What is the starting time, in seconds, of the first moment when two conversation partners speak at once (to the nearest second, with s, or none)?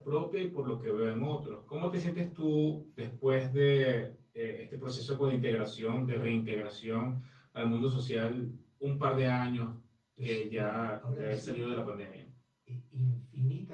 10 s